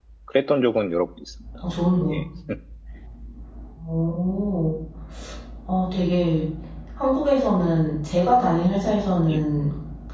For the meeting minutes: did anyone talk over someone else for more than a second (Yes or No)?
No